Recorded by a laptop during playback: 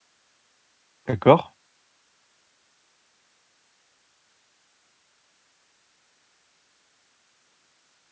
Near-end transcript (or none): D'accord,